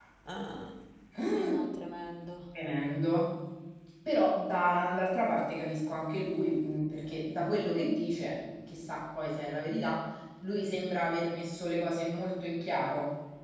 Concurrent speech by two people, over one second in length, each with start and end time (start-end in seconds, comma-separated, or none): none